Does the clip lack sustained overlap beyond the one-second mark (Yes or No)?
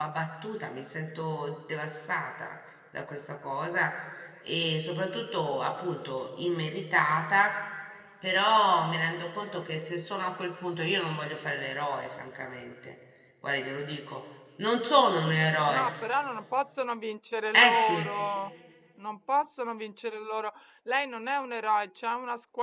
Yes